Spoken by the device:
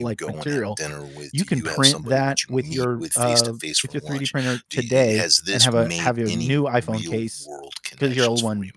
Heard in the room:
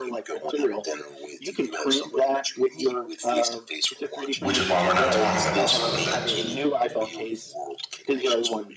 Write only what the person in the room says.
which is why we're not talking about certain things.

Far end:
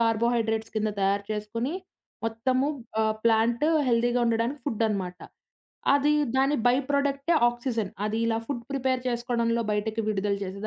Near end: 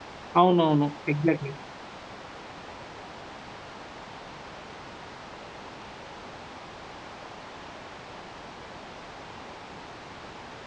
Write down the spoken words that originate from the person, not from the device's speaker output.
అవునవును. ఎగ్జాక్ట్‌లీ.

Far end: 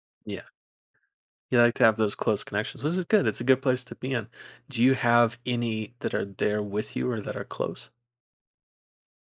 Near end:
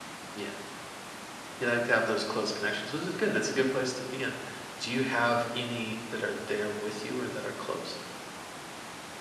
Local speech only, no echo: none

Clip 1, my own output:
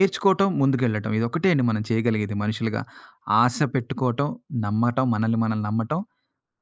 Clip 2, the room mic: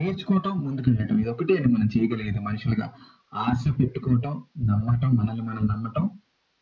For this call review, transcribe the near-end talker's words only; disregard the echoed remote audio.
none

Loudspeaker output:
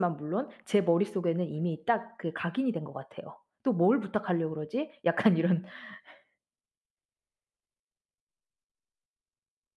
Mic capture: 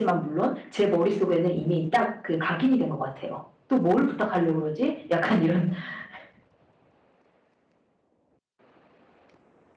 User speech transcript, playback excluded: none

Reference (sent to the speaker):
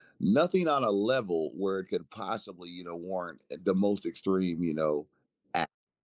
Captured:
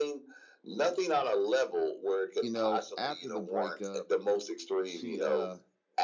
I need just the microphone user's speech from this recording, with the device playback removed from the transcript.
You know, after the breakup, she uh,

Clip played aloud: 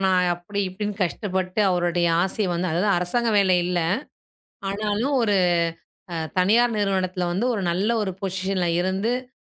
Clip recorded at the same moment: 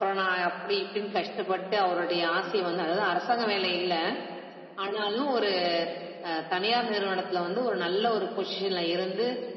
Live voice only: none

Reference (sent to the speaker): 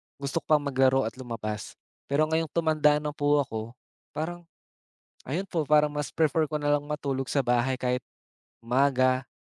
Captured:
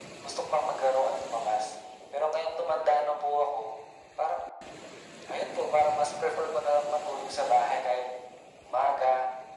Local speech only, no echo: none

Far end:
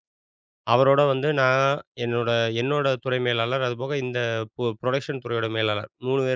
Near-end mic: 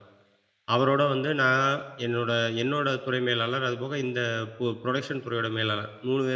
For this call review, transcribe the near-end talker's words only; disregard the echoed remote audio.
none

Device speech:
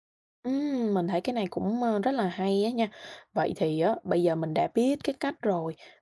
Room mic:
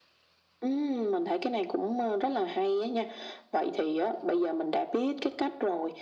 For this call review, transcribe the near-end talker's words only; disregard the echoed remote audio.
none

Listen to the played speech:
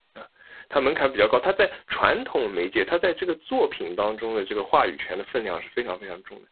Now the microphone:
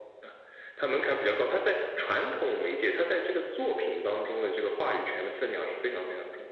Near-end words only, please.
none

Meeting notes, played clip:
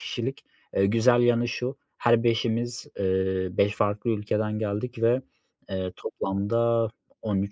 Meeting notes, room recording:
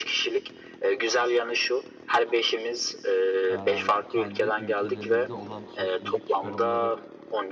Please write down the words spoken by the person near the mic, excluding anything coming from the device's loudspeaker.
eee, kendi ülkelerinizde olan sosyolojik çıkarımları

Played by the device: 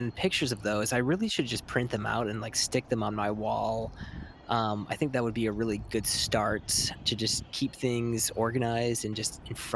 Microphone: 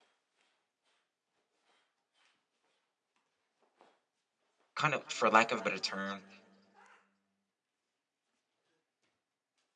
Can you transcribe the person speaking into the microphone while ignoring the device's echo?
kind of for lack of a better term

